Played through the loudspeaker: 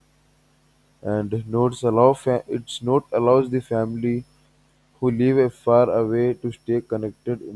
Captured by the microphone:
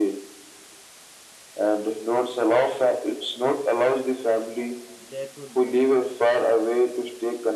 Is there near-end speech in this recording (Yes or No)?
Yes